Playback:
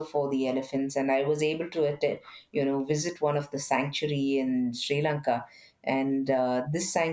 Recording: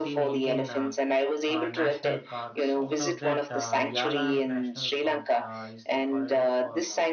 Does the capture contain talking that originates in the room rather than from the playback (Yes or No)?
Yes